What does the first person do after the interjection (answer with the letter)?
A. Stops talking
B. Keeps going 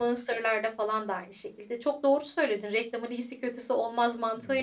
B